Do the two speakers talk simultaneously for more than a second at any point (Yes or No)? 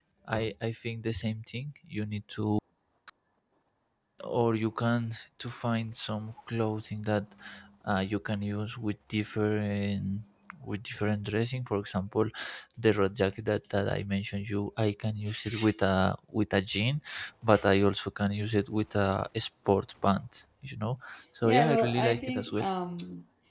Yes